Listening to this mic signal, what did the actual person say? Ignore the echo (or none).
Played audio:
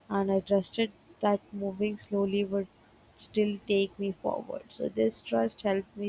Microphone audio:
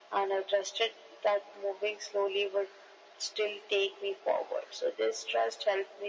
none